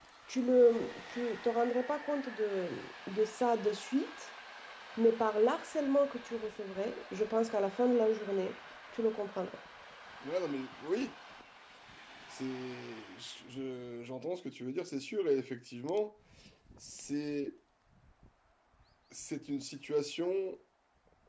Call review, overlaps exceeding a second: none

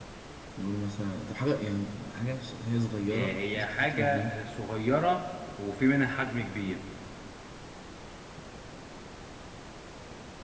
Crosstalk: present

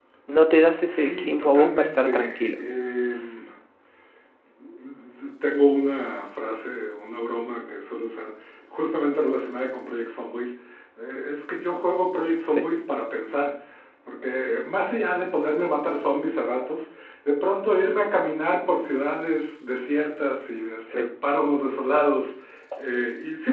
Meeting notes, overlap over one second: present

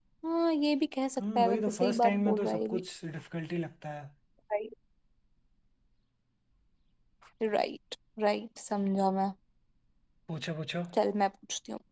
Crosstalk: present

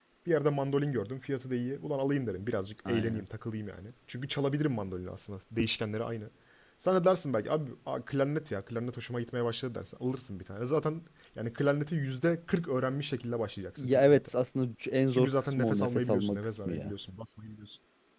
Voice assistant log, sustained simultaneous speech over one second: present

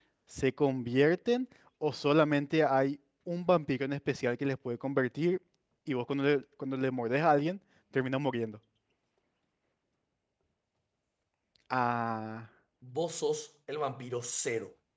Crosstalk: none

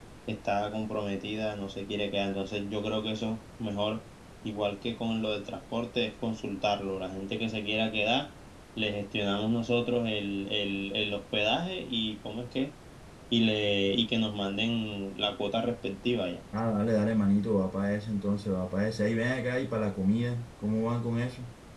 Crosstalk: none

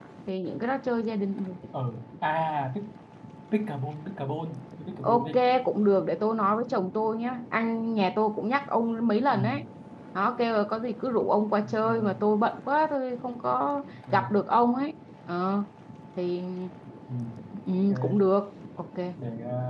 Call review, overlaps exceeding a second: none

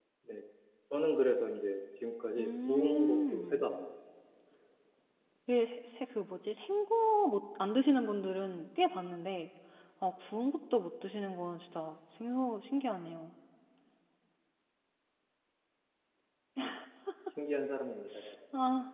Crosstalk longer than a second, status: present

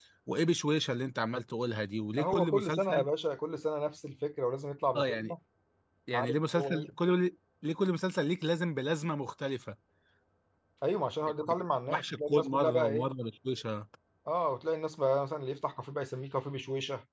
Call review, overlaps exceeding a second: present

